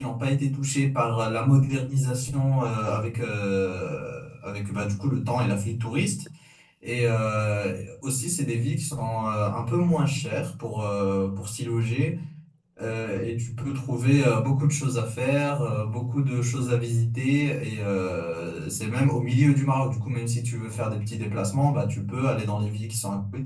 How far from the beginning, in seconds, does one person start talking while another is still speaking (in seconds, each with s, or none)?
none